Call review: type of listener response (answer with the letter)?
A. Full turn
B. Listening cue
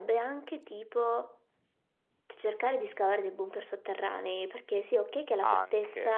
B